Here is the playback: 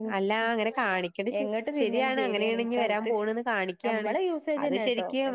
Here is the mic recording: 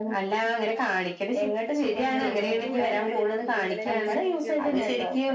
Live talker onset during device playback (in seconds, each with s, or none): 2.2 s